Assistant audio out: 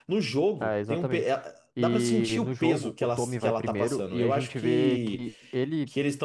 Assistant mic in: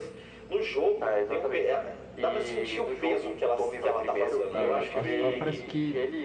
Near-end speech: present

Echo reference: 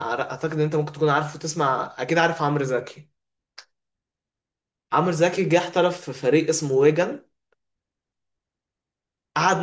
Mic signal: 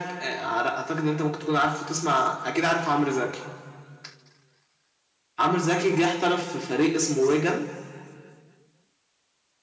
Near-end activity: none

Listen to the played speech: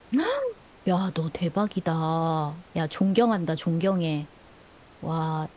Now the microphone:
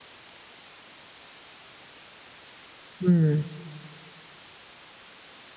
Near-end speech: present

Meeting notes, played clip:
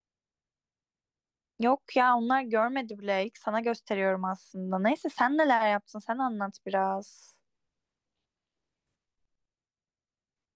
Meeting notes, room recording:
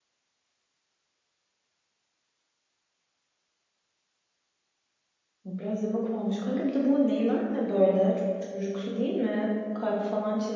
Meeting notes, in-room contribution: present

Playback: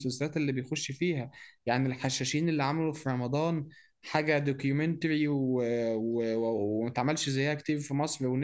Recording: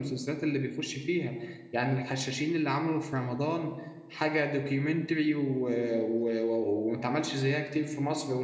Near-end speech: none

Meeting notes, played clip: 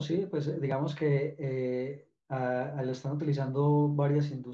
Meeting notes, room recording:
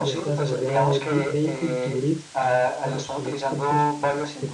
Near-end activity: present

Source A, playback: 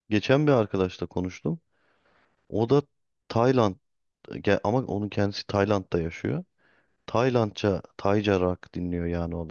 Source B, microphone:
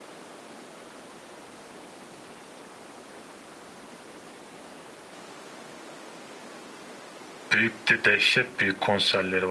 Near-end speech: present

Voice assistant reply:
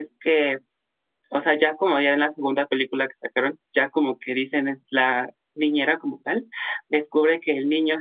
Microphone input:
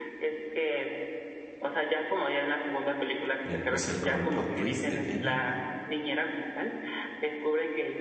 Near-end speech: present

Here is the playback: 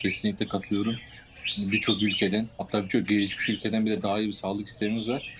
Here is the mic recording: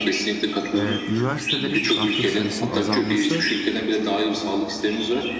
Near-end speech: present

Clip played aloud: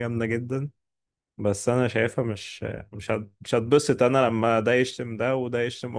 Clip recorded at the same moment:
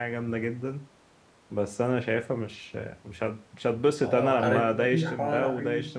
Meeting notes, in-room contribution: present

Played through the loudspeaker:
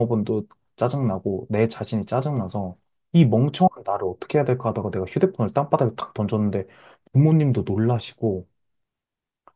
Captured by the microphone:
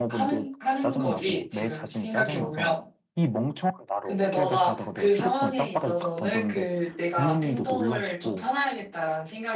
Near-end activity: present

